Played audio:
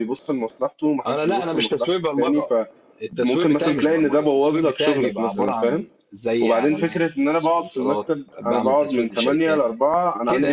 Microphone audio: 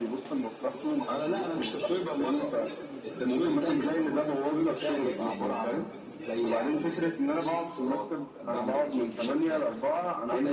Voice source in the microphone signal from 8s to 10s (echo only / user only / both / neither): both